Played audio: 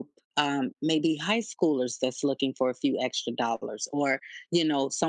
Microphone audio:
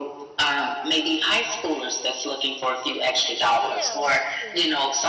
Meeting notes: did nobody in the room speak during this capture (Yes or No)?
No